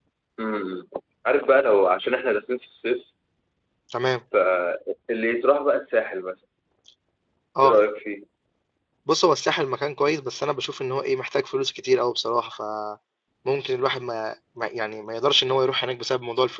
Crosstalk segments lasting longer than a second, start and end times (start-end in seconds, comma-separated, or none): none